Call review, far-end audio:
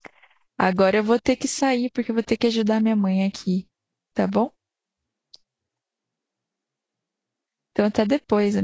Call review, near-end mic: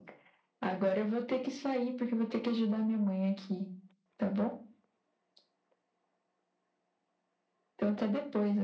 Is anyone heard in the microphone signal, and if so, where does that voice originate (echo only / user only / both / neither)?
echo only